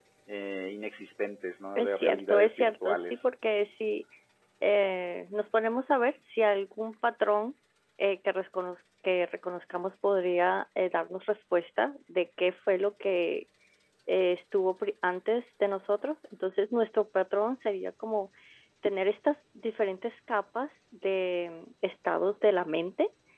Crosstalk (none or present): present